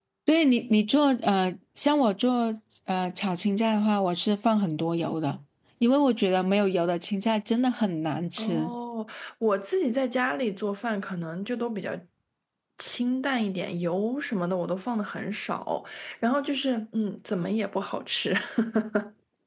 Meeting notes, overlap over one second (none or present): none